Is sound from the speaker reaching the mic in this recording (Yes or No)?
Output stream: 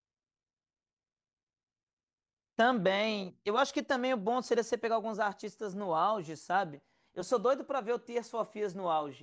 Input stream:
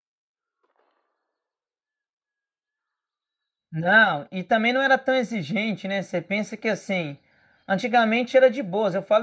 No